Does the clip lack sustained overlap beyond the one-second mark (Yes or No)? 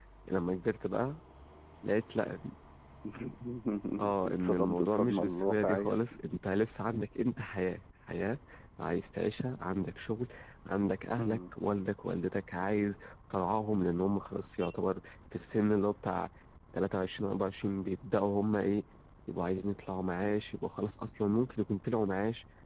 No